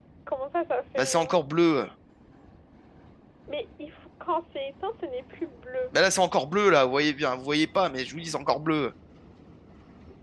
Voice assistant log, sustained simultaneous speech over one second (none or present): none